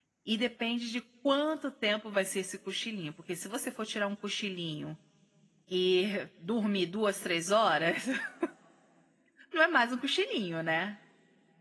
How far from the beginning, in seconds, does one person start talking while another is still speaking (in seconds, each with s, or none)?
none